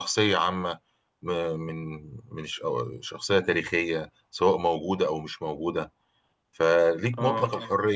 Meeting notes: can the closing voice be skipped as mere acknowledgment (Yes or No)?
Yes